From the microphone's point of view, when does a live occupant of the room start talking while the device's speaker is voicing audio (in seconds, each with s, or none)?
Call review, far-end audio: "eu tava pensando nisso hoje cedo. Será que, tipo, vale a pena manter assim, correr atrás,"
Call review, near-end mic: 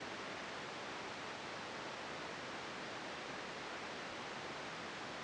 none